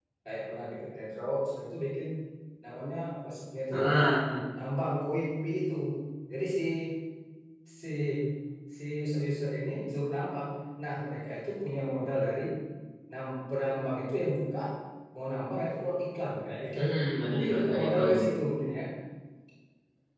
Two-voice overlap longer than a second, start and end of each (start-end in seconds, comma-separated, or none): 16.8-18.0